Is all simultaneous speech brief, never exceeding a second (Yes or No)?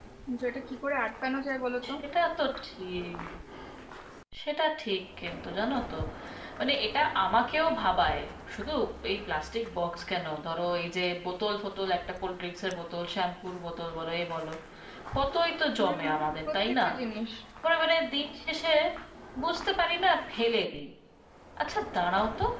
Yes